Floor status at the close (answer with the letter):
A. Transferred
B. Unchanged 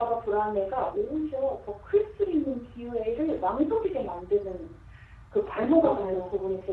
B